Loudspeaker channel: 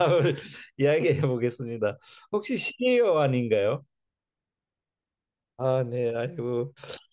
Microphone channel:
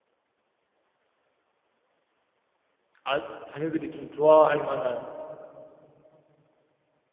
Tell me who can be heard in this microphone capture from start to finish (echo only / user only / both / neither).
user only